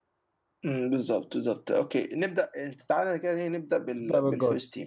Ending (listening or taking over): listening